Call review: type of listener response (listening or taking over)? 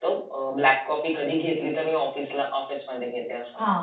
taking over